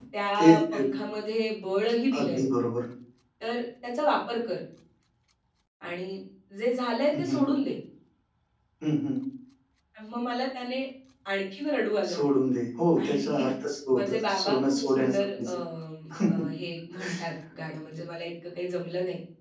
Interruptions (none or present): present